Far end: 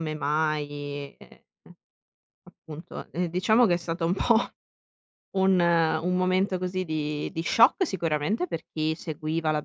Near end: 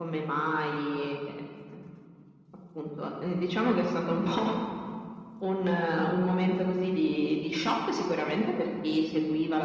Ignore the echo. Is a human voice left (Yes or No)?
No